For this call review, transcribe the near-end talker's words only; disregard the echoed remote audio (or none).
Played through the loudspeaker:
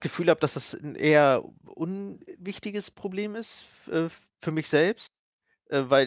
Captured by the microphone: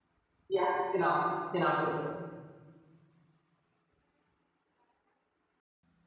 Ja, genau. Genau so ist es.